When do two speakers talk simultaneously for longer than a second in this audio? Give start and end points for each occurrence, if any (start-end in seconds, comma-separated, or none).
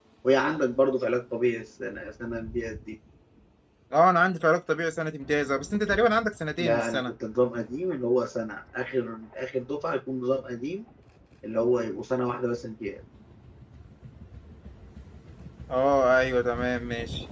none